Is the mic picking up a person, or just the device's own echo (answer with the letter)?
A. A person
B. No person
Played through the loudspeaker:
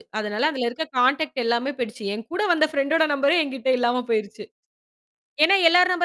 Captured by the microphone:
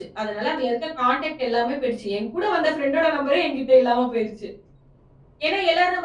B